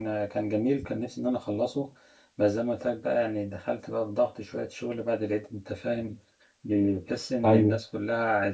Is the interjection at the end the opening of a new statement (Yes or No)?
No